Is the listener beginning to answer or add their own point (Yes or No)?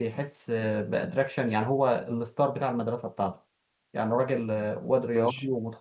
No